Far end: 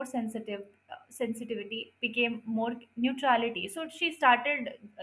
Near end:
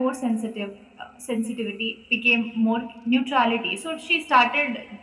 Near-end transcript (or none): none